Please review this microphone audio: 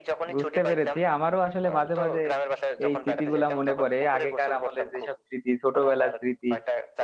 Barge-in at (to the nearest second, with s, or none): 0 s